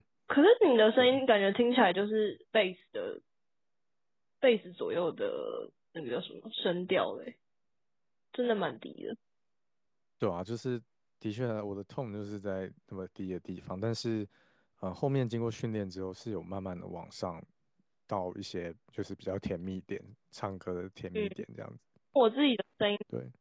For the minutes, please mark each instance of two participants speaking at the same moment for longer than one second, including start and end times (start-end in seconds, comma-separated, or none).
none